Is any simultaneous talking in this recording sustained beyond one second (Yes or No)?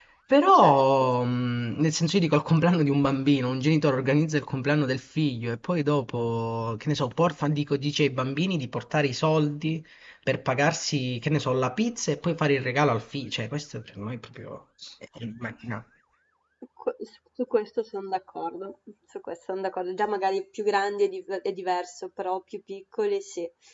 No